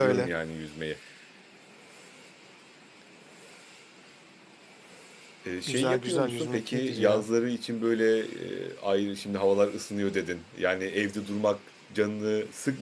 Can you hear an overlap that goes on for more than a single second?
Yes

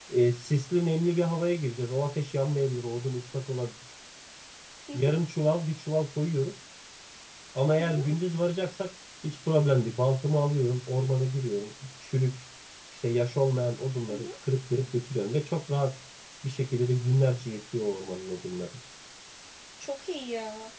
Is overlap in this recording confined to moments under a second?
Yes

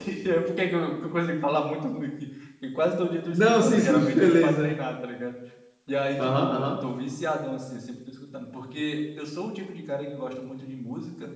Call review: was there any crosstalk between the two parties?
Yes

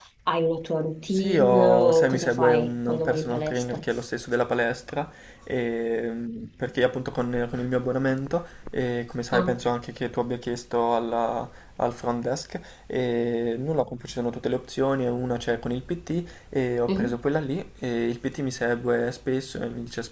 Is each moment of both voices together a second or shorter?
No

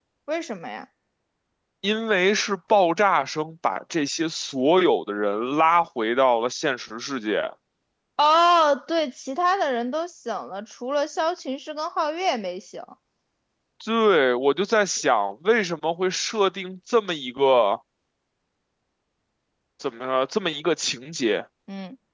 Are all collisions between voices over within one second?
Yes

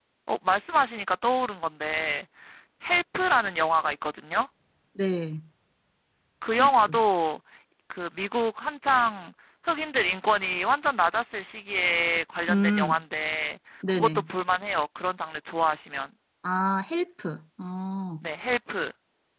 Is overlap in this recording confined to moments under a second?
Yes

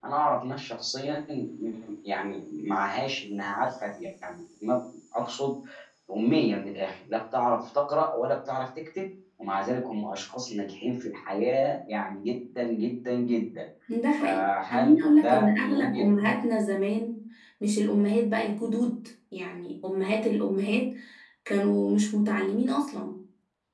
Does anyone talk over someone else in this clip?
Yes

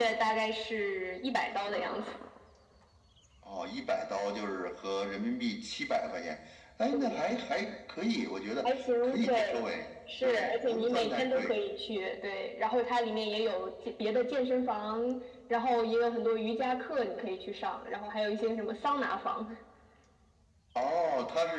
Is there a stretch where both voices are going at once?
Yes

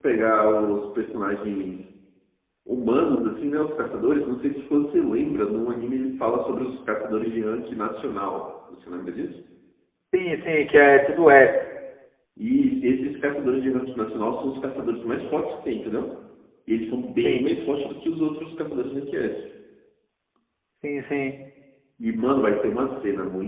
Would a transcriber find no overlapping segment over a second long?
Yes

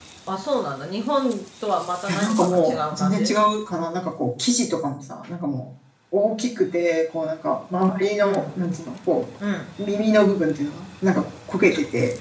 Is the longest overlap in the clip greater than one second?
Yes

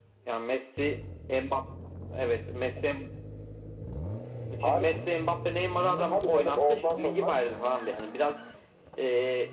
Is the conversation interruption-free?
No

